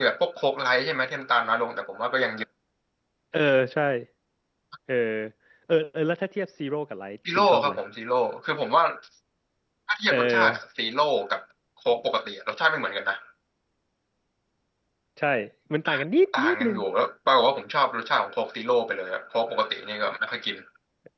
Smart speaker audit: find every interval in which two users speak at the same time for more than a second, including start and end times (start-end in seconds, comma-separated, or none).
none